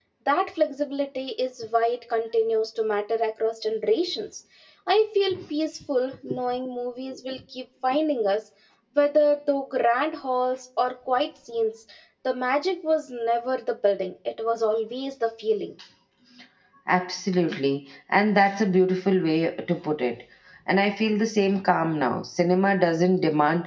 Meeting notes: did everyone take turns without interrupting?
Yes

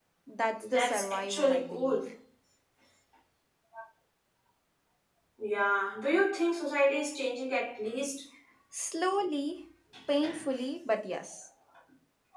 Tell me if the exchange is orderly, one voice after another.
No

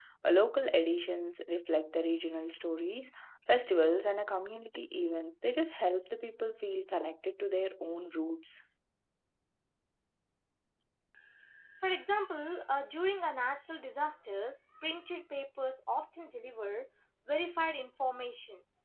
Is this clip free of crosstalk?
Yes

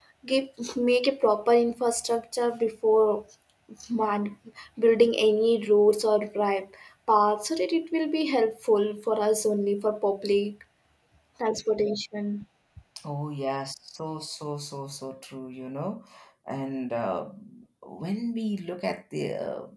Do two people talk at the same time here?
No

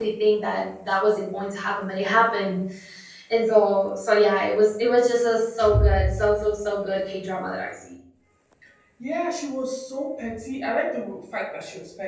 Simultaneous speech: No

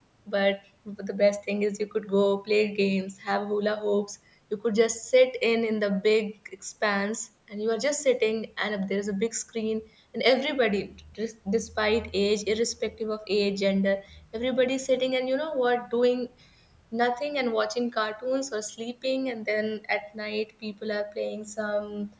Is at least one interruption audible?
No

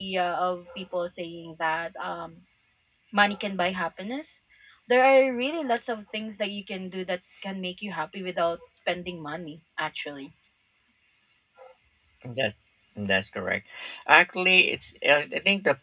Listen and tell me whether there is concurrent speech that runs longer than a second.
No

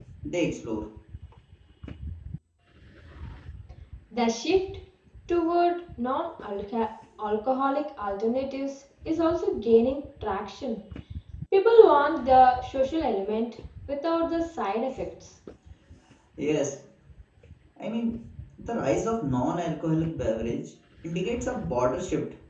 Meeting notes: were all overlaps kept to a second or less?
Yes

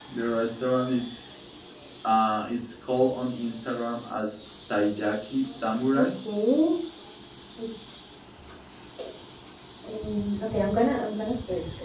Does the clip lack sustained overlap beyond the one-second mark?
Yes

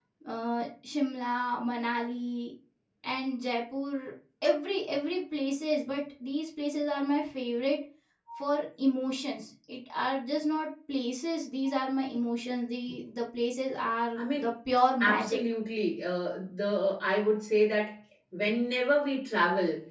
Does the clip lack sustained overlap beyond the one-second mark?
Yes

